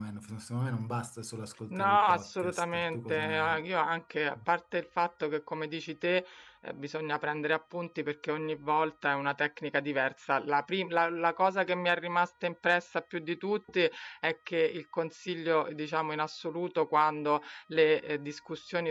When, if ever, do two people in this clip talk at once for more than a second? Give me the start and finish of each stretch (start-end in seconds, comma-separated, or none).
1.7-3.6